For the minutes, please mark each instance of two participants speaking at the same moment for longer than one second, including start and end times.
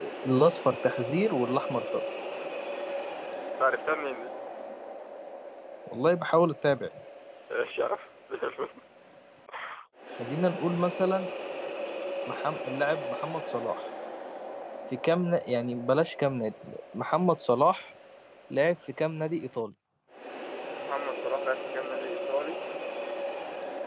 none

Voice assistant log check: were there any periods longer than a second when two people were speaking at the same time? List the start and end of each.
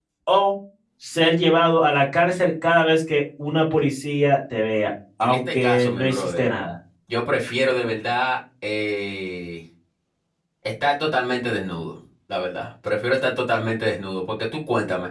5.2-6.4

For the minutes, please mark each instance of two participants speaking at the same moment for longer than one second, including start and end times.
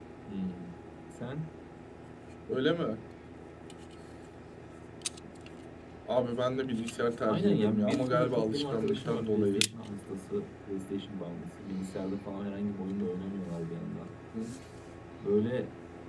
7.2-9.6

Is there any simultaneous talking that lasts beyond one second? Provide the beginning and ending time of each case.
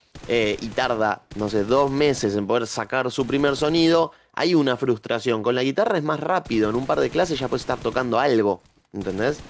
none

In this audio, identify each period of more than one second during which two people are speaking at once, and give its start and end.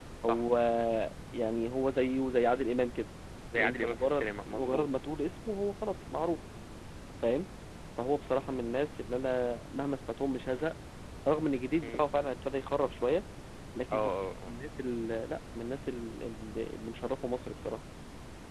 3.6-4.8

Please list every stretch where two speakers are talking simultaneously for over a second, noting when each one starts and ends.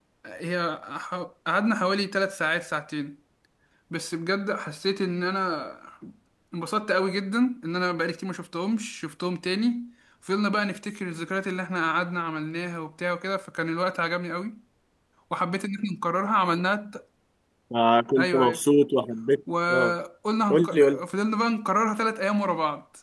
none

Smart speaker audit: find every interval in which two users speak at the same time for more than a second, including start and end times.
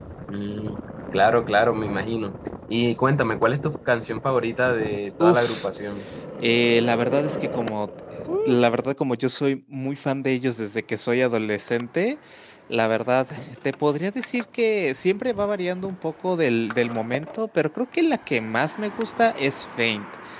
none

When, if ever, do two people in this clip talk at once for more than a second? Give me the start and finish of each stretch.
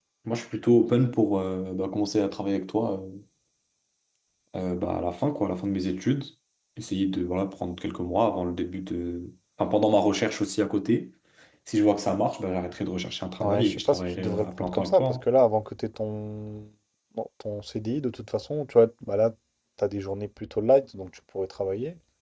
13.4-15.2

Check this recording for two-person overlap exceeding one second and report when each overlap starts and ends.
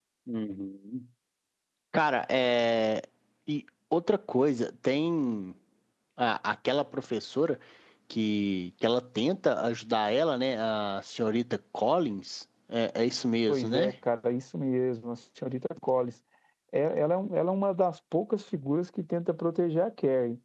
none

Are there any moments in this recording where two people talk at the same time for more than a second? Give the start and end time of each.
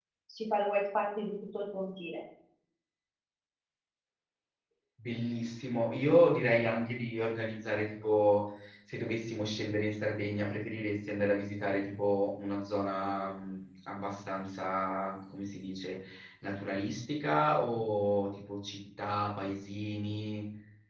none

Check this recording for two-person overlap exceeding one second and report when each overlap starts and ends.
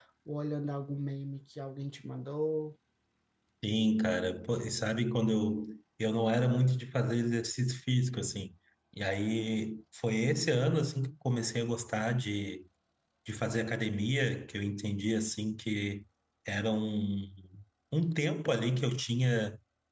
none

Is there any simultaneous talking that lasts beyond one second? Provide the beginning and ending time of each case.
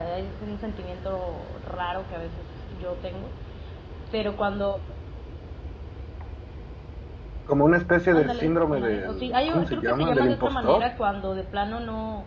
8.1-10.9

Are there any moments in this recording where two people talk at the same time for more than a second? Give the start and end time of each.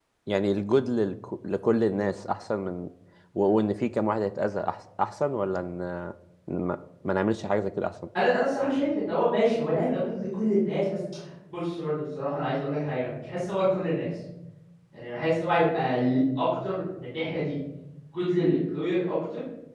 none

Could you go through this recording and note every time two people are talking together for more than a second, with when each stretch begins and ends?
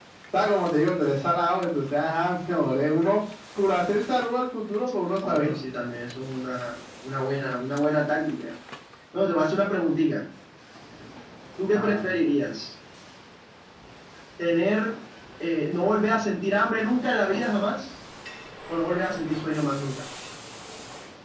none

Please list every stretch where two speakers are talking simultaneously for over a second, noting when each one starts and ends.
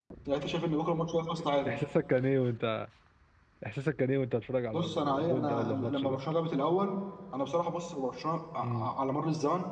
4.7-6.2

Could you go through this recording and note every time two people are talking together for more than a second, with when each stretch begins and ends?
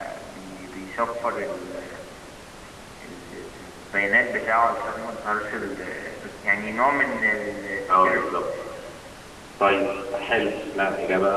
none

